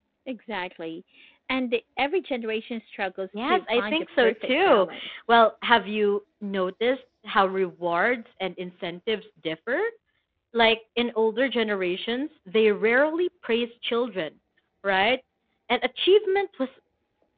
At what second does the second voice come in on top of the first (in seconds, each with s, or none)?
3.3 s